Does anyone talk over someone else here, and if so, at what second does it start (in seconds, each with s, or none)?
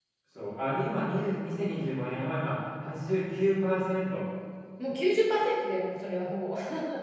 none